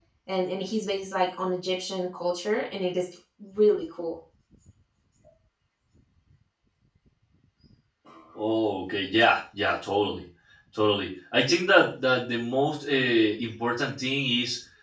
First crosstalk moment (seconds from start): none

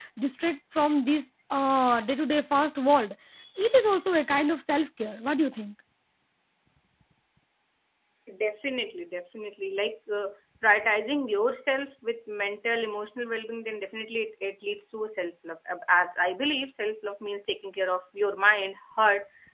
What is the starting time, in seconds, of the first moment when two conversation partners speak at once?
none

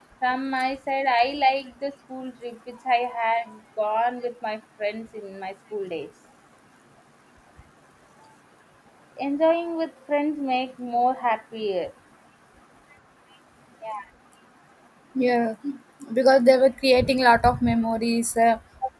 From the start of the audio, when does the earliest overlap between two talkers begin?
none

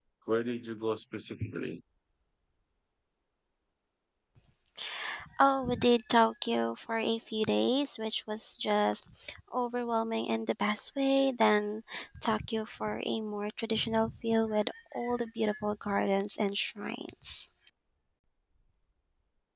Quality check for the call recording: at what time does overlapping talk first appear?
none

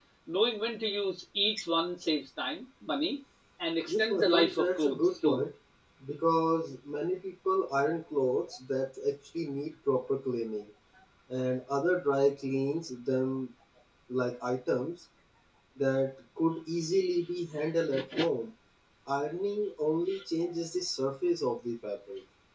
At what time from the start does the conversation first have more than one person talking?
3.9 s

